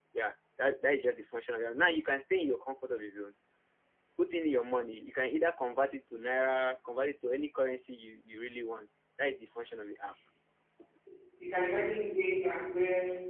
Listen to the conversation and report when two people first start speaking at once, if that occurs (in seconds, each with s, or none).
none